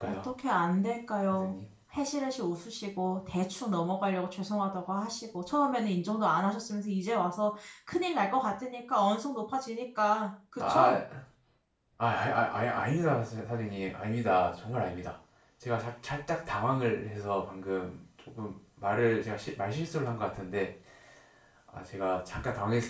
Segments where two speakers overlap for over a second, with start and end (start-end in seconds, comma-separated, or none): none